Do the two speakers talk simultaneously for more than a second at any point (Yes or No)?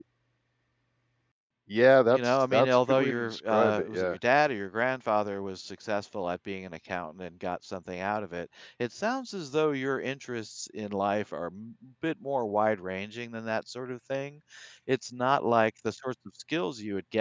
Yes